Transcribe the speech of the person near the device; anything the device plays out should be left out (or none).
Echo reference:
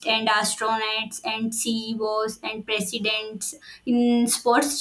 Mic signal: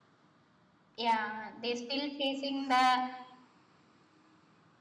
Yeah, they still facing the